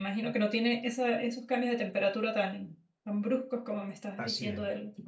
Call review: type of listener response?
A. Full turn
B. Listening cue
A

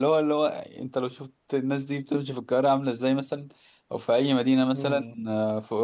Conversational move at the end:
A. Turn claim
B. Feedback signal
B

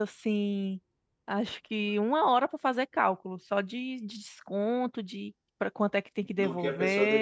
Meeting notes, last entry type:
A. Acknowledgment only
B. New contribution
B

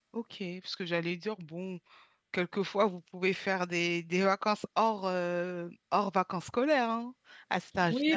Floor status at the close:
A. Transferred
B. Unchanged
A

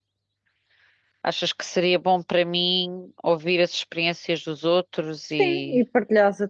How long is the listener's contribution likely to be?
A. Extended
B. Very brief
A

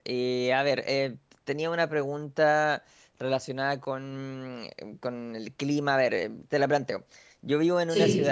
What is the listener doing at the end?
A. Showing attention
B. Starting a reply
A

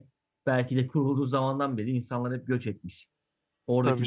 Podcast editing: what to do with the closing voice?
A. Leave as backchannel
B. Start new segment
A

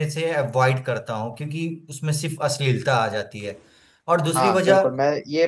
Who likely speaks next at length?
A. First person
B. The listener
B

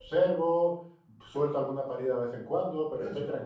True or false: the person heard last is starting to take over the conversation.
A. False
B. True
A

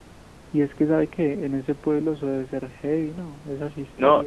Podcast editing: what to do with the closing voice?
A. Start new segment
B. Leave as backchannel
A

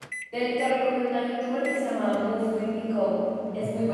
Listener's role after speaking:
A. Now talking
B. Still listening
A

